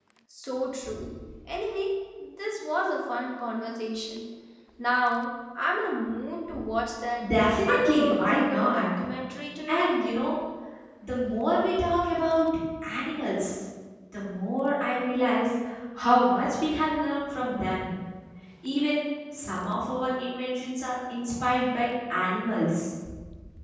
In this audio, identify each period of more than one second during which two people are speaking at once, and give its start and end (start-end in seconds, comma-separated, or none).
7.2-8.9